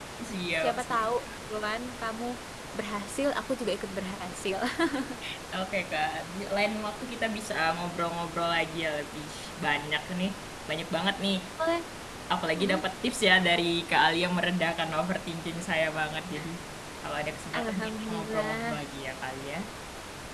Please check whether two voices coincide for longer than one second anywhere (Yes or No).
Yes